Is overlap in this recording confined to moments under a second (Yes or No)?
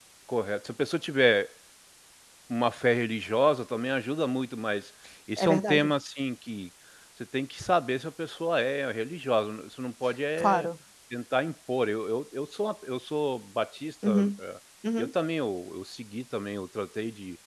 Yes